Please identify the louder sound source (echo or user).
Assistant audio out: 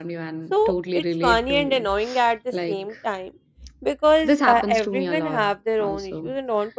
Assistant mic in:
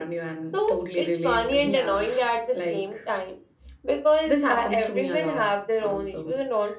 echo